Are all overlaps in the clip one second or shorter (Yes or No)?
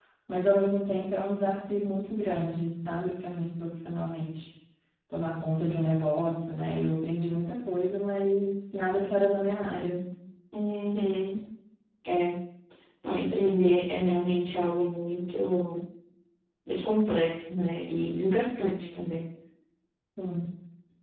Yes